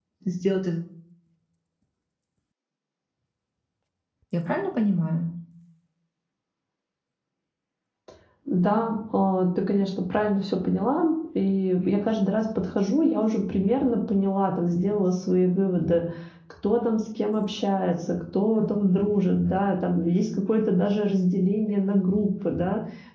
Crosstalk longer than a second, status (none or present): none